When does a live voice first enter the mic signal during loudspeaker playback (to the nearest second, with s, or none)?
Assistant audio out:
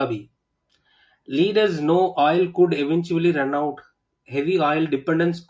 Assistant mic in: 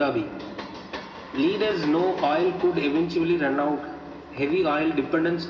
none